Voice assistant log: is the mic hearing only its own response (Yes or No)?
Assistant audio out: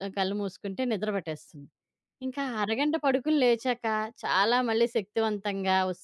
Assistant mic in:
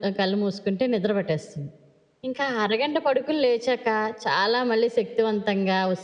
Yes